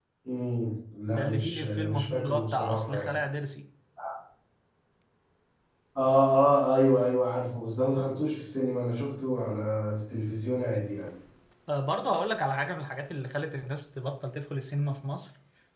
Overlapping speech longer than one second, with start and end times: 1.1-3.1

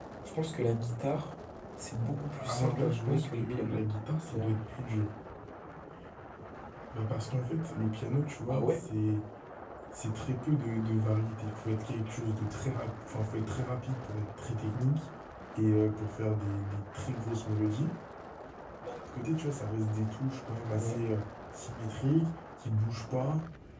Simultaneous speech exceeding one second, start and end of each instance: 2.4-3.9

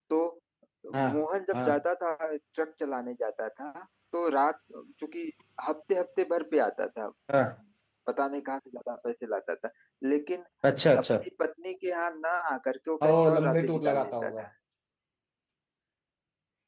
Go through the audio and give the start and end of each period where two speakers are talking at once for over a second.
13.0-14.4

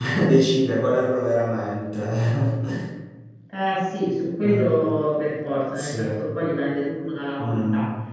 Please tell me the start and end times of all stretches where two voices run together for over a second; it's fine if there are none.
none

